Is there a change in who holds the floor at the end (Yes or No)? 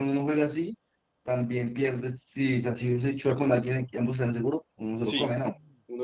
Yes